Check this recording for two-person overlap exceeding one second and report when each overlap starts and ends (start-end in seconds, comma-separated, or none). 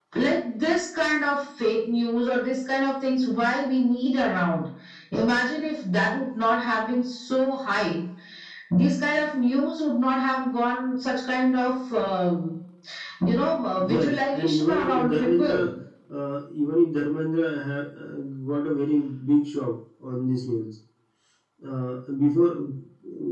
13.8-15.7